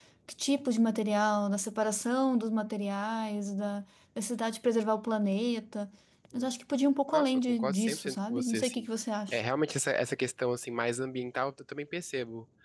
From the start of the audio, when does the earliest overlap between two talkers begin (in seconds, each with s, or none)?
7.1 s